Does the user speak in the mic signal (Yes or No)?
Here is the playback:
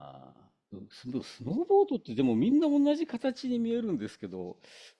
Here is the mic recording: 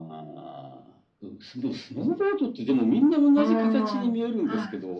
Yes